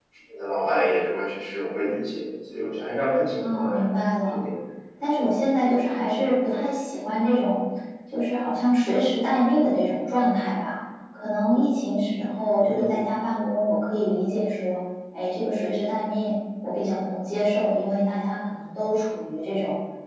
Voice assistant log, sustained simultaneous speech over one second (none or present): none